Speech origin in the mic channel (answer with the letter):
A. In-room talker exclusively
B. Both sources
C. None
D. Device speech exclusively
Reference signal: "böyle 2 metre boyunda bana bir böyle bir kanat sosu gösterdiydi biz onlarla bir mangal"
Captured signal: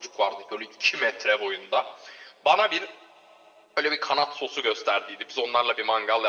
D